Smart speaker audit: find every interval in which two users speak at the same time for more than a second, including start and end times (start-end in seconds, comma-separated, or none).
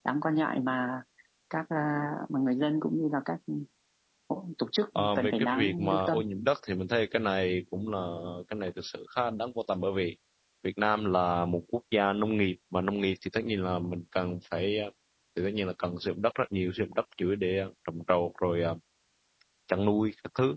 5.0-6.2